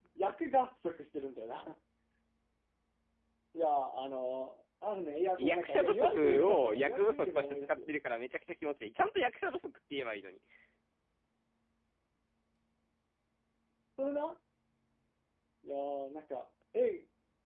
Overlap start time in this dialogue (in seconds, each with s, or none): 5.4 s